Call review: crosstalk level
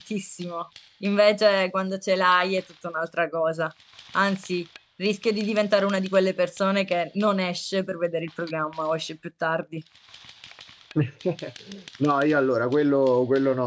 none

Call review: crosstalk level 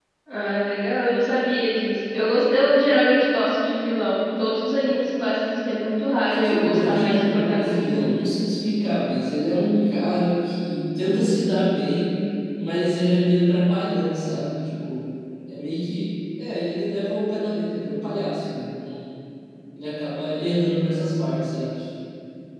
present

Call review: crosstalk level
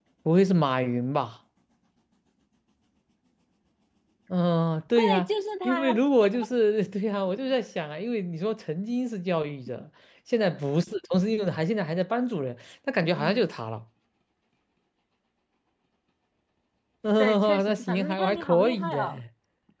present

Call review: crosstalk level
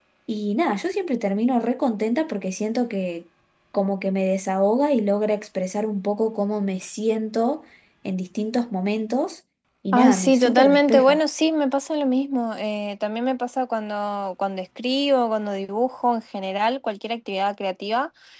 present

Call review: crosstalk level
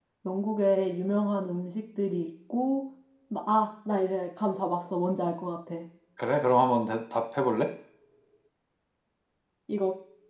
none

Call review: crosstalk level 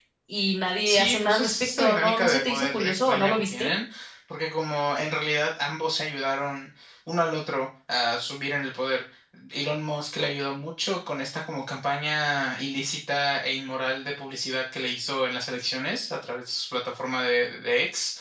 present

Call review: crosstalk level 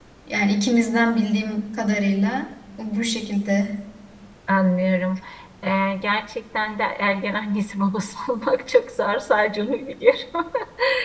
none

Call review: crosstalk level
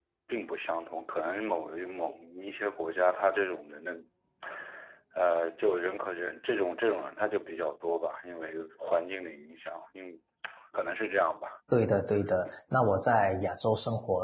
none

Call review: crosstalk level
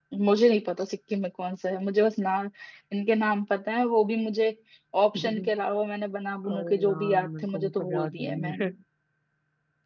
present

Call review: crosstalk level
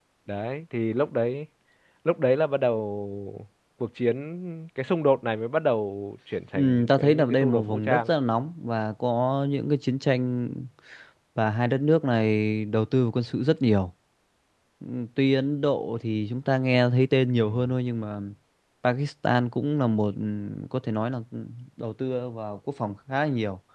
present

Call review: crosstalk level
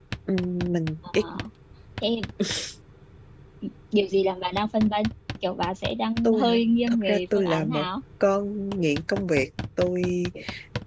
present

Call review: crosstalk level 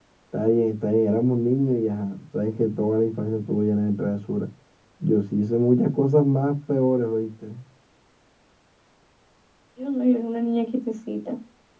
none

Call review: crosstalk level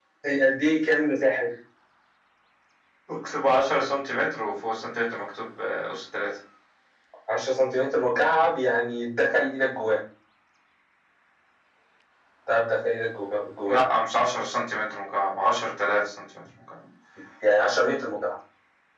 none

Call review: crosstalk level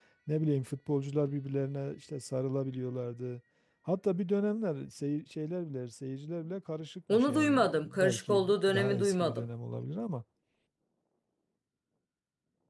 present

